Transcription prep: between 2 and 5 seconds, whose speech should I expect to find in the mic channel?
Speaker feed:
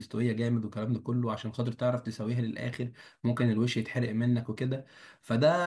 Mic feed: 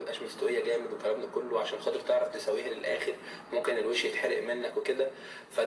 echo only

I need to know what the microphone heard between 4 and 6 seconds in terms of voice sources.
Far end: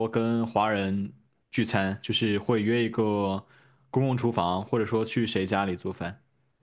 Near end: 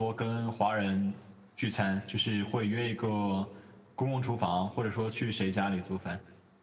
echo only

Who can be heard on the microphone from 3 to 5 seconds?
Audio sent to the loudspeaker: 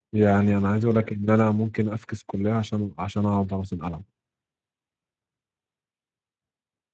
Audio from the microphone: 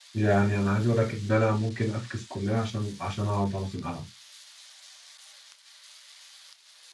echo only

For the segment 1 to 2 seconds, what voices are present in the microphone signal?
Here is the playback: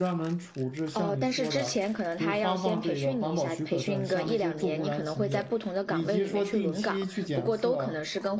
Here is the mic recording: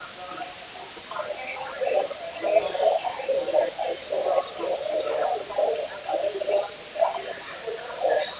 echo only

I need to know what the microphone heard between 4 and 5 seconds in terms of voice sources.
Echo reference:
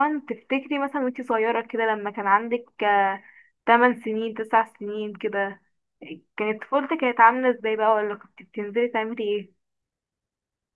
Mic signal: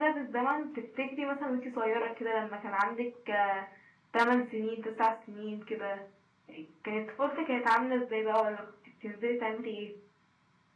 echo only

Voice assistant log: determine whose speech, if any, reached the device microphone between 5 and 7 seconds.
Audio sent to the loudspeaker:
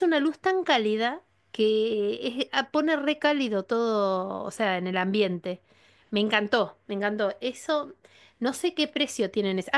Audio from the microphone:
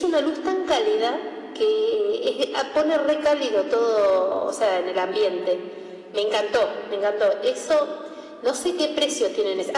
echo only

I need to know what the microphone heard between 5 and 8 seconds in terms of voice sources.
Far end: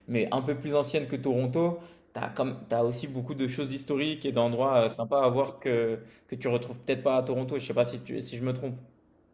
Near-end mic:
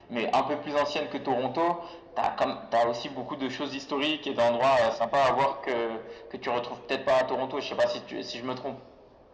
echo only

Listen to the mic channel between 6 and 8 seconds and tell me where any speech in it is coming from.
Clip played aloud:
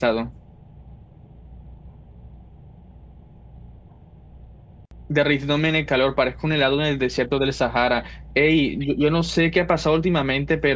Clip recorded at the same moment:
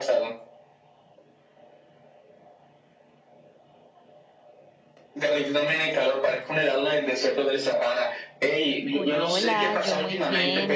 echo only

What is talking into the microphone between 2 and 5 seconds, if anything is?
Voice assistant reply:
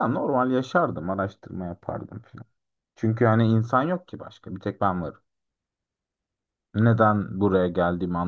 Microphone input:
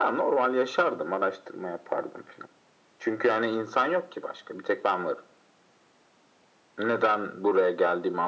echo only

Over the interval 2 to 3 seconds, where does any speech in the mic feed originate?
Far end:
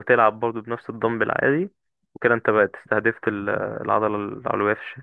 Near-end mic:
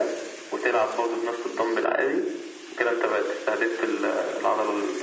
echo only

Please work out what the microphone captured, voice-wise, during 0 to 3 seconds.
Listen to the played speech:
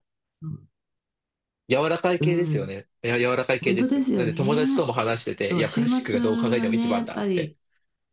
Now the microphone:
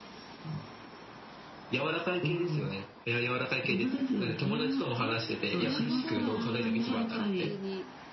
echo only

